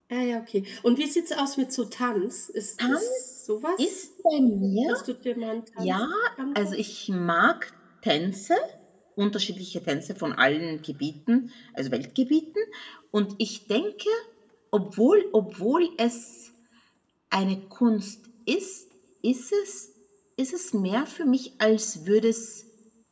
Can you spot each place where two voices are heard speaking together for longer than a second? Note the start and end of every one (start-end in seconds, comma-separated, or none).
none